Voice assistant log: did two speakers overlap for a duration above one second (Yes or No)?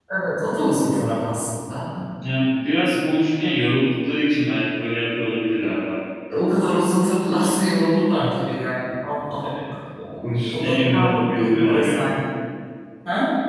Yes